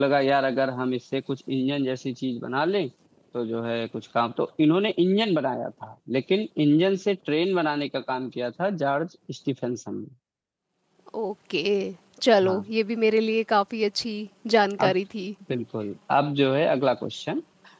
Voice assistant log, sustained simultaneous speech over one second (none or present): none